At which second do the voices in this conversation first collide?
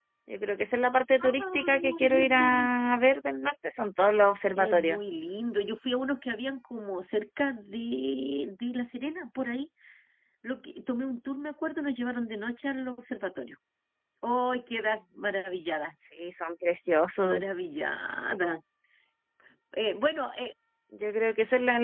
1.3 s

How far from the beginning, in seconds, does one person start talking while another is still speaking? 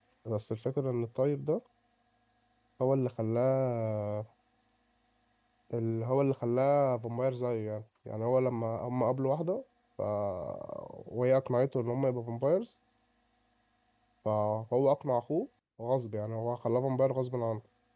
none

